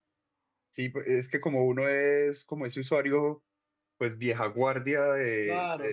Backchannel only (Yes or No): No